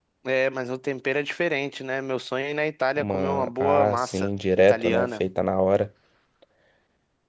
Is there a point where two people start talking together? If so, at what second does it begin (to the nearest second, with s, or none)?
3 s